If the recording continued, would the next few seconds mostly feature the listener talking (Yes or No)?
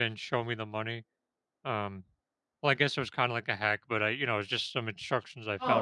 Yes